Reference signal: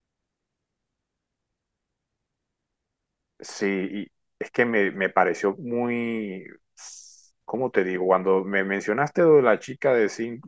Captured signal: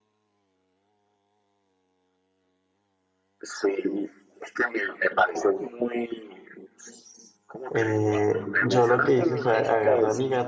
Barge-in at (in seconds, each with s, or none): 7.7 s